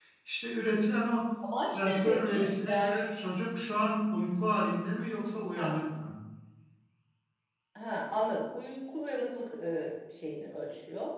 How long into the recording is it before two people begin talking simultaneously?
1 s

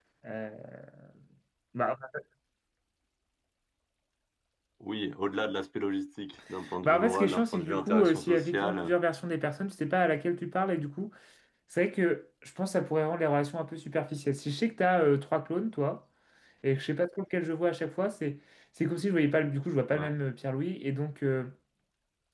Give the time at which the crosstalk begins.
7 s

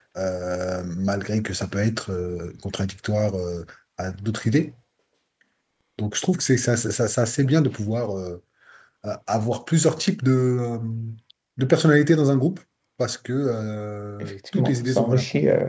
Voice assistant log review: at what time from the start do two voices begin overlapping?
14 s

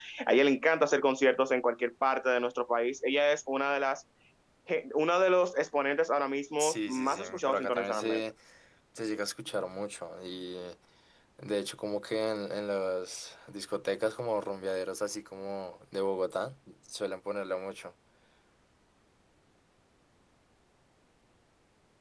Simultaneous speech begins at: 7 s

